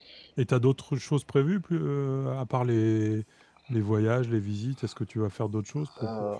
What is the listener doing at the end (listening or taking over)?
taking over